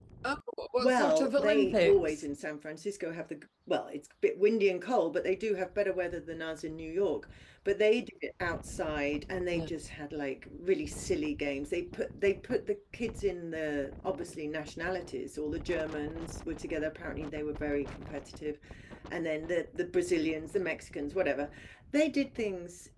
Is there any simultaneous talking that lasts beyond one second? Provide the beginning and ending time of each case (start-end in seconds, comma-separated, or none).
0.8-2.2